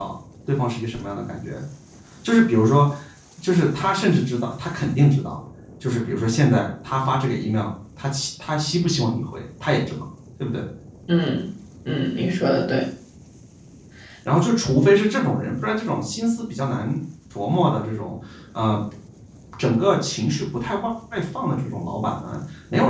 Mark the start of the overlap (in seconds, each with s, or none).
none